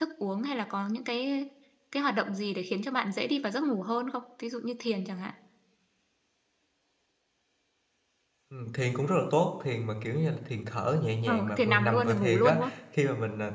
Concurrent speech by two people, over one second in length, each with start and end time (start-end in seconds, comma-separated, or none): 11.2-12.6